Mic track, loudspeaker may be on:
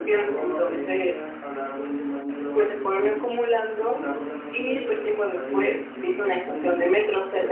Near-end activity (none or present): present